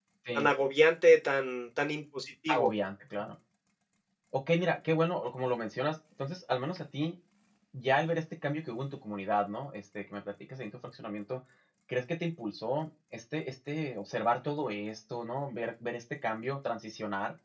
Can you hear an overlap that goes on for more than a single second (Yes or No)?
No